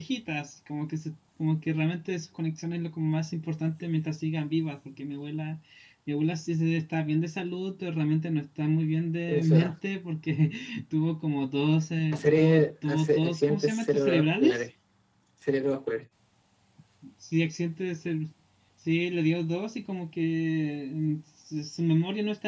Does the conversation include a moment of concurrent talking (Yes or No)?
Yes